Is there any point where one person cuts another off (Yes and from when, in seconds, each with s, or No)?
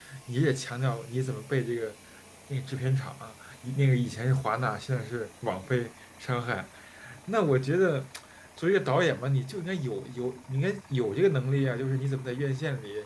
No